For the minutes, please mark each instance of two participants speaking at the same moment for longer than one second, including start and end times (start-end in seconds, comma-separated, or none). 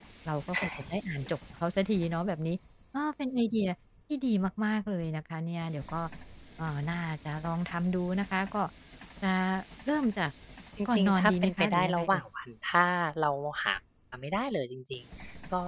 10.9-12.2